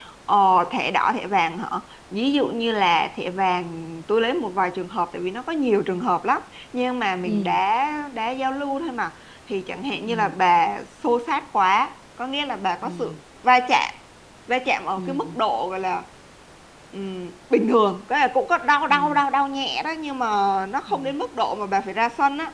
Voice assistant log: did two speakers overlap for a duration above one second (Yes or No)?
No